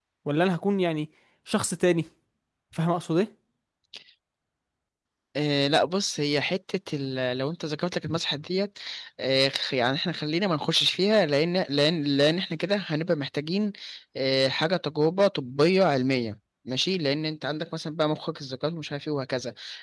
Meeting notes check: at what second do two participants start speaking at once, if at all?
none

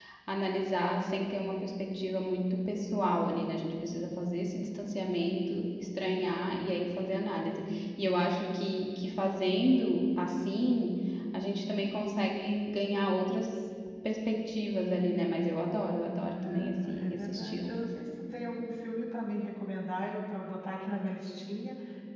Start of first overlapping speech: 16.4 s

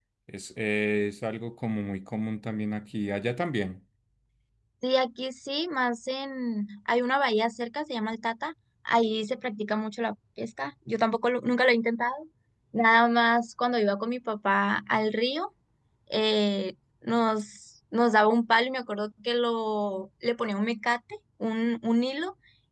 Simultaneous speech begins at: none

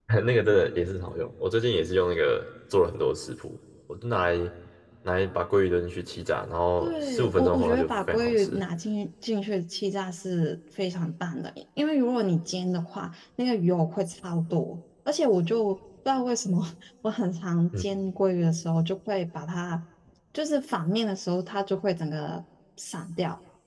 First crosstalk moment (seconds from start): 6.8 s

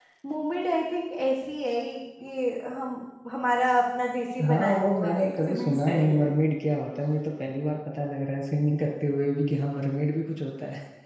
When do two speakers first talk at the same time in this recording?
4.4 s

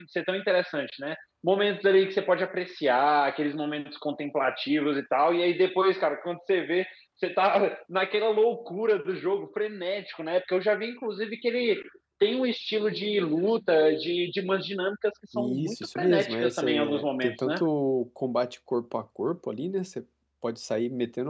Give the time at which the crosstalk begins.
15.3 s

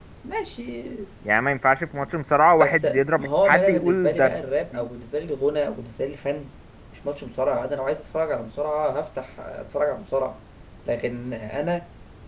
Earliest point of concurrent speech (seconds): 2.6 s

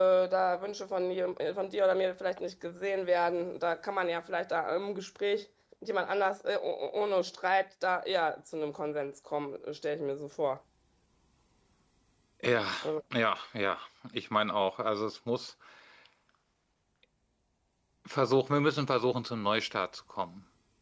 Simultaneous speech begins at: none

